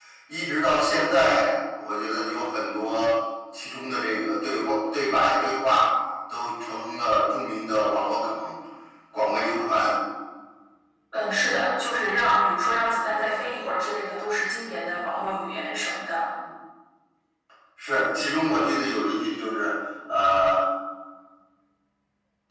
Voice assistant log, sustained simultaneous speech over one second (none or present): none